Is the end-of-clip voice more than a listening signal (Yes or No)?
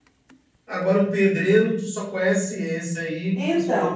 Yes